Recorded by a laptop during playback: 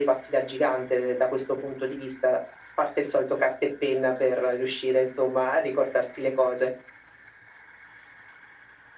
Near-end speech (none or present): none